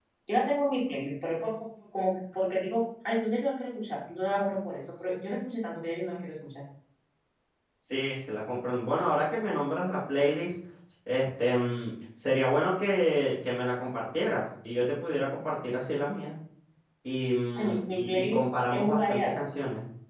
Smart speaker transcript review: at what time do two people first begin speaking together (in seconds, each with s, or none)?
17.6 s